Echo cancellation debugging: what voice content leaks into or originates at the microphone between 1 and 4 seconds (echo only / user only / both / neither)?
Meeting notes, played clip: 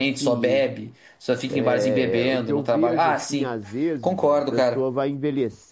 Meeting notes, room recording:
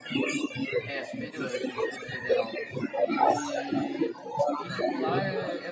both